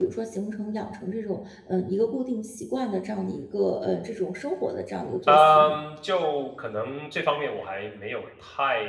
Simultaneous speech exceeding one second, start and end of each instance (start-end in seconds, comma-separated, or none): none